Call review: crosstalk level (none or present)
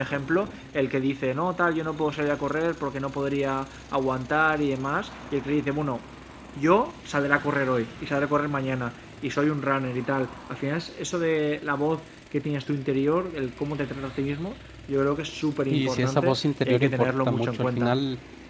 present